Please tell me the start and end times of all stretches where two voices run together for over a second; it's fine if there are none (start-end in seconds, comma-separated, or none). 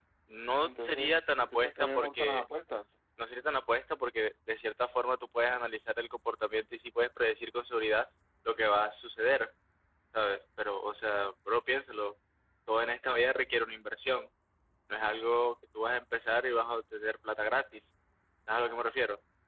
0.6-2.4